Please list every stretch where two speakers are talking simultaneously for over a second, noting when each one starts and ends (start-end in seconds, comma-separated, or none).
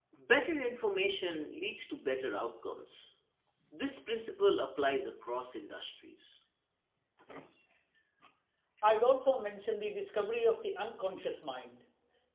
none